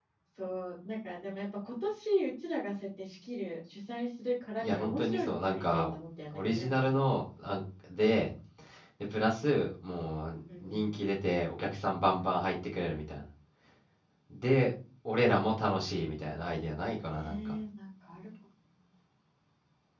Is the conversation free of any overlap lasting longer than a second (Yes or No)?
No